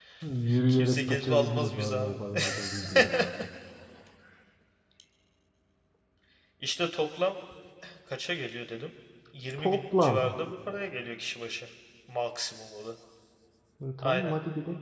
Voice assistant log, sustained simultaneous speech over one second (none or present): present